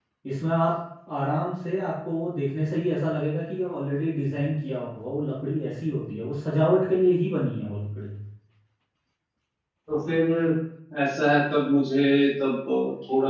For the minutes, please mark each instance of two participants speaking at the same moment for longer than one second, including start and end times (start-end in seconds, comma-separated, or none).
none